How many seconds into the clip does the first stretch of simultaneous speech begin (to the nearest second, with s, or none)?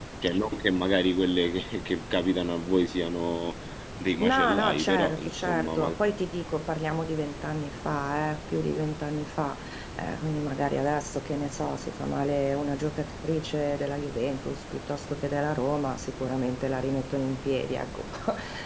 4 s